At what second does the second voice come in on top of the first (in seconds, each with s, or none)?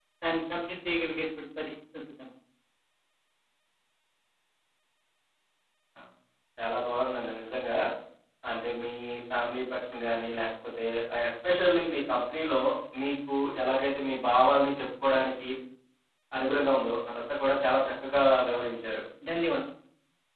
none